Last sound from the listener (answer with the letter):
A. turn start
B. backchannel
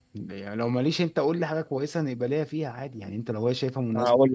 A